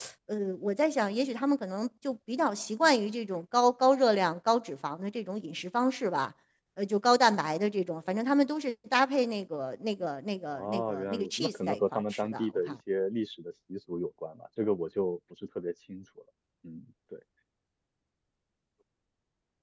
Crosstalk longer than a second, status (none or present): present